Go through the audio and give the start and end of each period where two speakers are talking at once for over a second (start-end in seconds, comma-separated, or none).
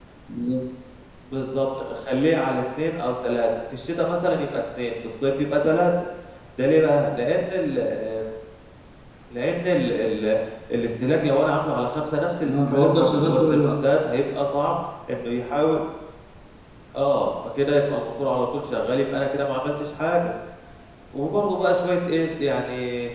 12.4-13.7